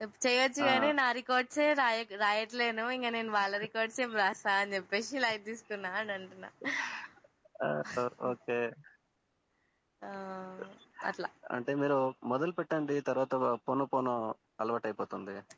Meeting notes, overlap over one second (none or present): none